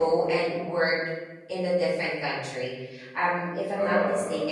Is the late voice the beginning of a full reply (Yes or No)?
No